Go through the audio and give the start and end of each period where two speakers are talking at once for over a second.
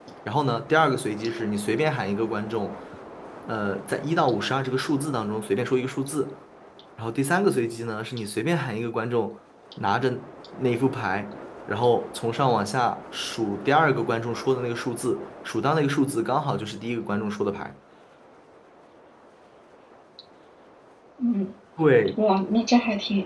none

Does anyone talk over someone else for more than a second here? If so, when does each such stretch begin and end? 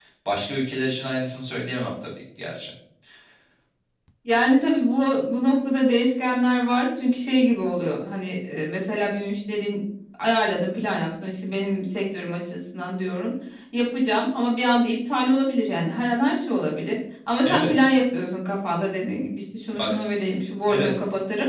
none

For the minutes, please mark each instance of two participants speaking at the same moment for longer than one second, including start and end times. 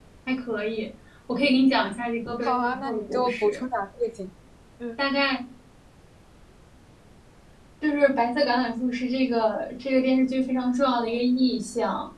2.4-3.6

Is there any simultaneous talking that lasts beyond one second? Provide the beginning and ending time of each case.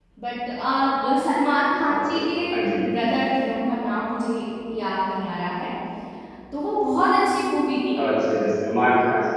none

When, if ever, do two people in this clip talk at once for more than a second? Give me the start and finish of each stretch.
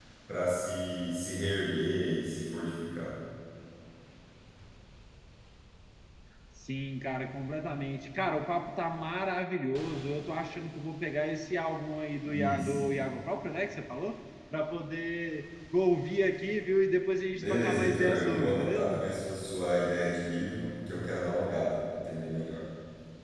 17.3-19.0

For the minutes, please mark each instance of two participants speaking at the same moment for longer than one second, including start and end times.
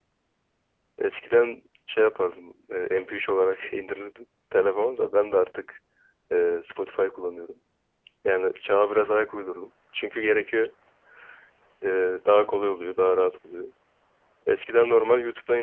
none

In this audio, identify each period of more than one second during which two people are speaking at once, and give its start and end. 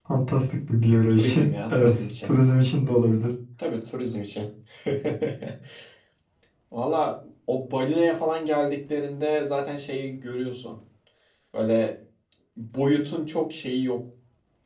1.1-2.3

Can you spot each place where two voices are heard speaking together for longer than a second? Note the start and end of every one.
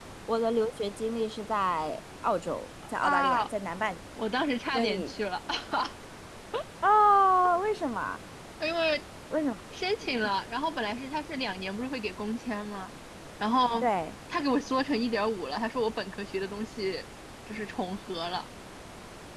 none

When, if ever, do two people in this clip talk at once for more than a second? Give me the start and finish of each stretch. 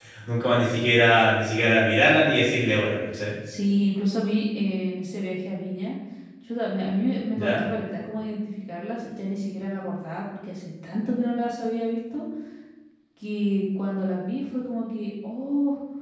none

